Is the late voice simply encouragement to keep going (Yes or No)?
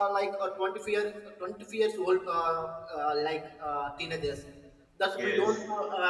Yes